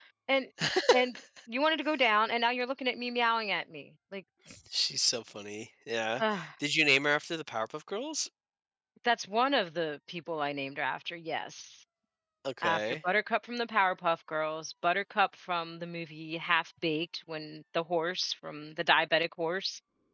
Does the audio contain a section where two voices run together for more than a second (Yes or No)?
No